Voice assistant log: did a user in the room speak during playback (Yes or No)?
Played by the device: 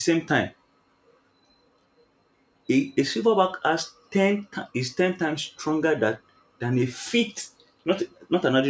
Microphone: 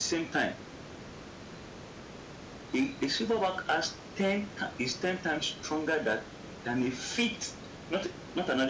No